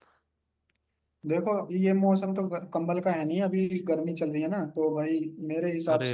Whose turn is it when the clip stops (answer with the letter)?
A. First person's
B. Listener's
A